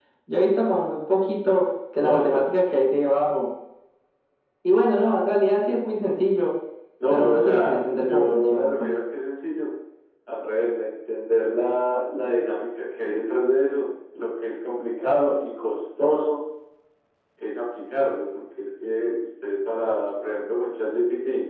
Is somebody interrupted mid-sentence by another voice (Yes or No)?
Yes